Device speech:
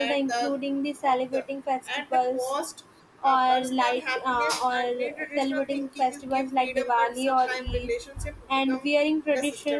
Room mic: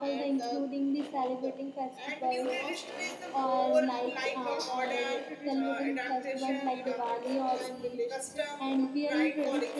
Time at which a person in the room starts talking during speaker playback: 2 s

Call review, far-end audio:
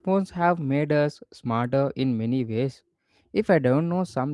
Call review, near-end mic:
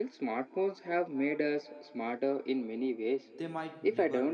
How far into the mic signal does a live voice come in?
3 s

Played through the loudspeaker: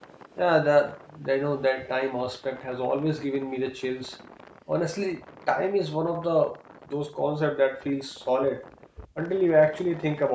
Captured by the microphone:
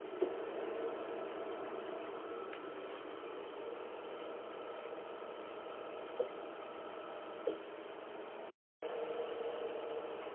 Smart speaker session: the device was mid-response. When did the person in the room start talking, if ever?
none

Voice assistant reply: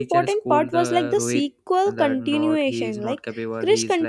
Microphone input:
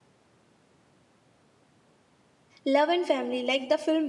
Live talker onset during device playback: 3 s

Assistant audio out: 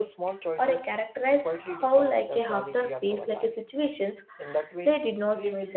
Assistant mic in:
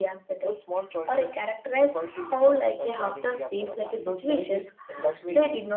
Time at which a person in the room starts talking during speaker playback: 4 s

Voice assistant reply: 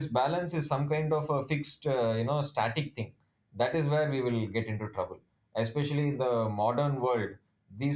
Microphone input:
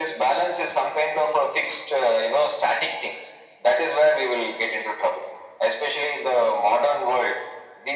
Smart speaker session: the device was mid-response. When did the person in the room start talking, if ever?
none

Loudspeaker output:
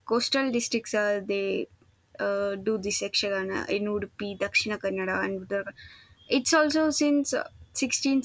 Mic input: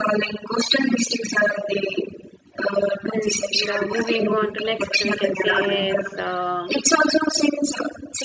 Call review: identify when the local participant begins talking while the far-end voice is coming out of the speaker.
3 s

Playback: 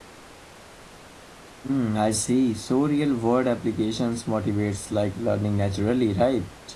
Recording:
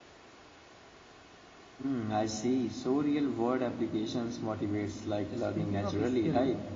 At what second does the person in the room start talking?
5 s

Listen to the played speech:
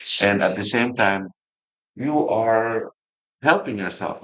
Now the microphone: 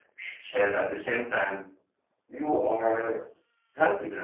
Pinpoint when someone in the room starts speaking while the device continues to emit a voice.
none

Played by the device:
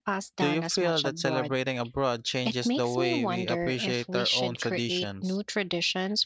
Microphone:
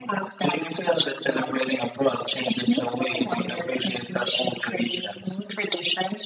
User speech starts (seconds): none

